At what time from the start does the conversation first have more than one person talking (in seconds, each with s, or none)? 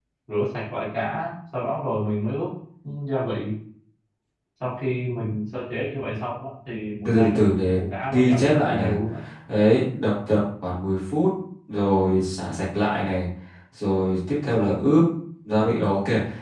7.0 s